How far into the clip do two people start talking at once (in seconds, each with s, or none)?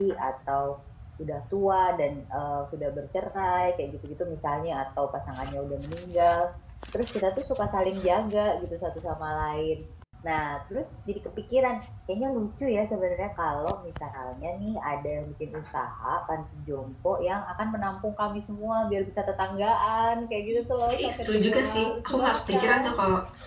20.9 s